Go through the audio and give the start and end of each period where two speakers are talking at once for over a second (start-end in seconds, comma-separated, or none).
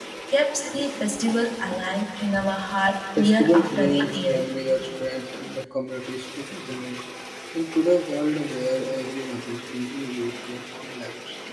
3.2-4.4